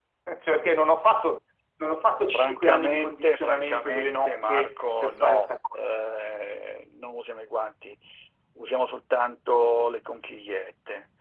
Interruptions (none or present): present